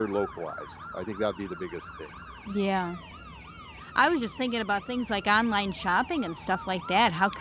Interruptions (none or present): none